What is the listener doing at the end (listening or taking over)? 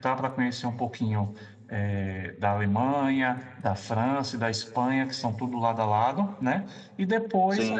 listening